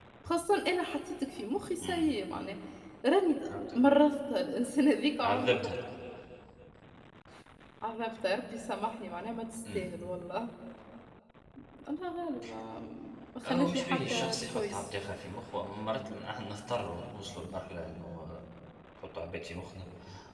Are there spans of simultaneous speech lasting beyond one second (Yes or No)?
Yes